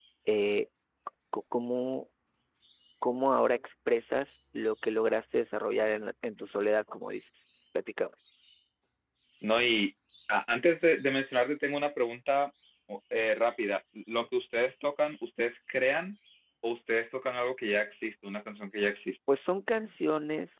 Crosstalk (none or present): none